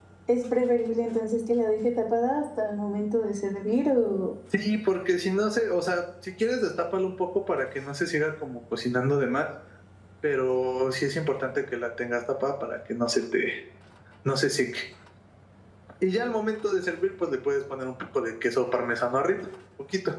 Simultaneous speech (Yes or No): No